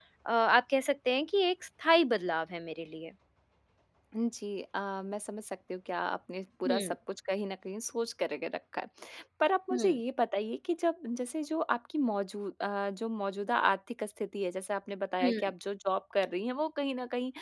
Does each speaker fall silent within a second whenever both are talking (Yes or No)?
Yes